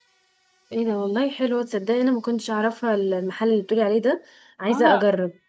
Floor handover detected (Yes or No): Yes